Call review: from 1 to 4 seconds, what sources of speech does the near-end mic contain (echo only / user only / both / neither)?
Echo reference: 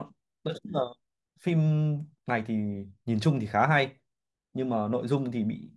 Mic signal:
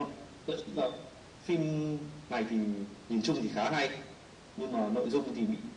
echo only